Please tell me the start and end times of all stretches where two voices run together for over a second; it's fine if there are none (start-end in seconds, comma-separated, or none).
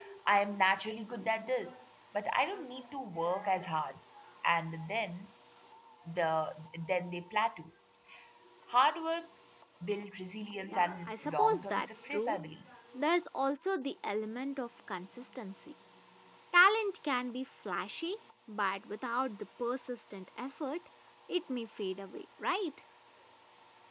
10.7-12.4